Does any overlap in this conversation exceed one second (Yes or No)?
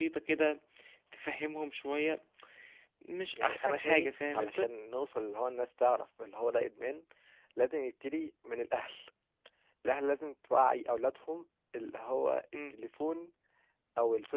Yes